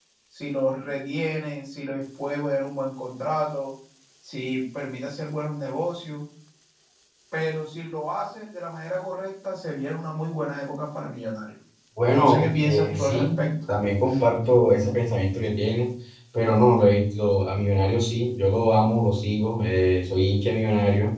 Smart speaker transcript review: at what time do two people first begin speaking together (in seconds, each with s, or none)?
12.1 s